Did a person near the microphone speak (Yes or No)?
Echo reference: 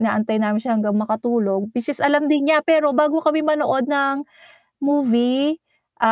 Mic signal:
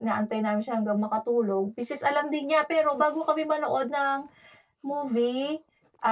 No